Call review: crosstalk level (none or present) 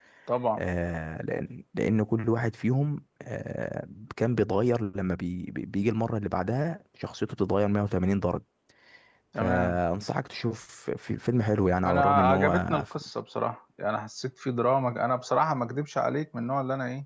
present